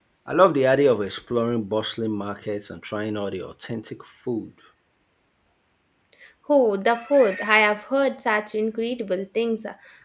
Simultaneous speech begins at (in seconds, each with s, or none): none